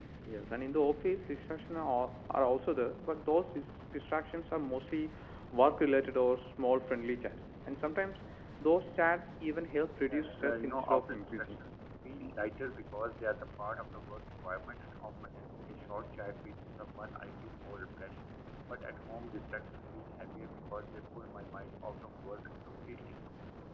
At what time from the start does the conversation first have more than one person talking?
10.1 s

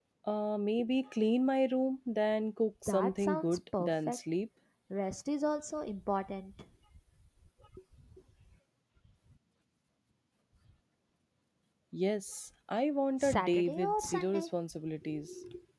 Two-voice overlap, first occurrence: 2.9 s

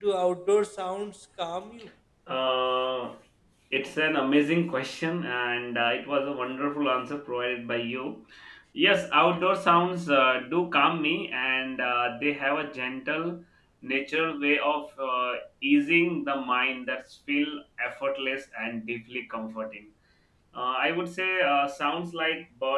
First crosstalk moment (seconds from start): none

